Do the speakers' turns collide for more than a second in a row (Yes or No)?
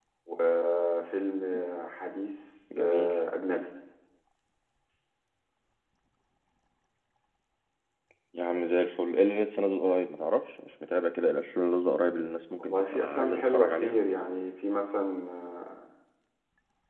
Yes